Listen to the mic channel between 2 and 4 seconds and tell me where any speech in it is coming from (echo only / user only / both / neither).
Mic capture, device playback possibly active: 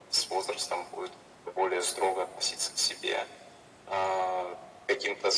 echo only